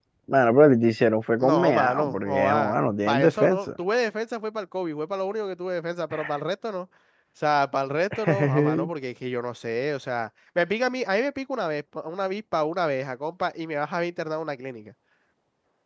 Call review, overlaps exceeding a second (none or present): present